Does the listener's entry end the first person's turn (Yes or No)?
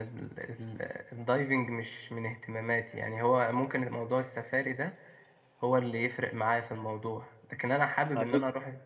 No